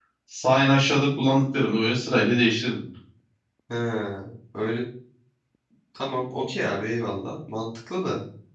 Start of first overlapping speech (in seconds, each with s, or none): none